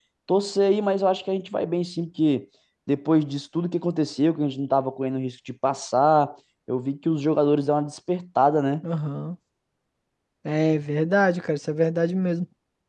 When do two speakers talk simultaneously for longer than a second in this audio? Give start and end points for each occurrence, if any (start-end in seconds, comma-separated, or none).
none